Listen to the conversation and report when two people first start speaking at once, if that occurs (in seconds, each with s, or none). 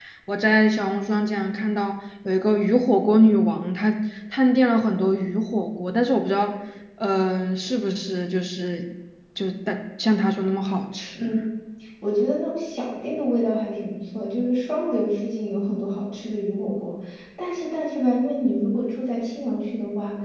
none